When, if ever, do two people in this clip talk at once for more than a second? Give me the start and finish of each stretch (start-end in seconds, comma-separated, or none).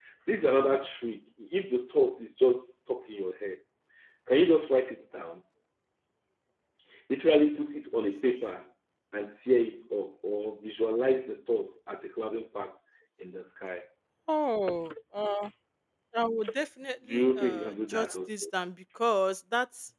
17.1-18.4